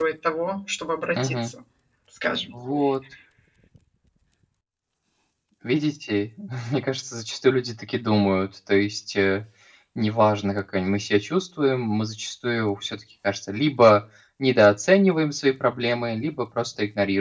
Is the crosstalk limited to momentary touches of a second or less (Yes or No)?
Yes